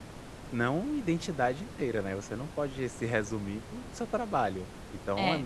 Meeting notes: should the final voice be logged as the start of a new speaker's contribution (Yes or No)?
No